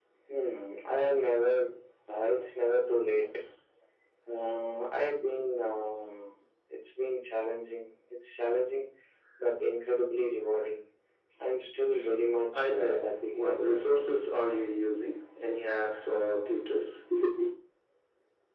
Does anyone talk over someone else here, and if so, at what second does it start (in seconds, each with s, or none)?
12.5 s